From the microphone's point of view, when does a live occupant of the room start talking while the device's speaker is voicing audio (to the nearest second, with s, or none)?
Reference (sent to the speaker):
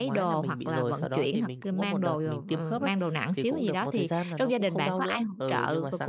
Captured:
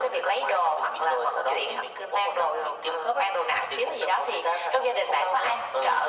none